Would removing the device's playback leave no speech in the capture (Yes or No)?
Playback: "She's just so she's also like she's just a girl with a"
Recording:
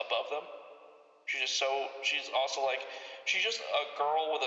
Yes